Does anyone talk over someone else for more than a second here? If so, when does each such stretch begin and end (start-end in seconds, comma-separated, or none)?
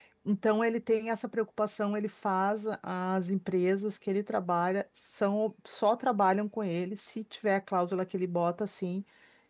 none